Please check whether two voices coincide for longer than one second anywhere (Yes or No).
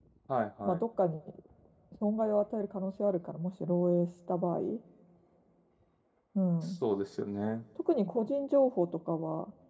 No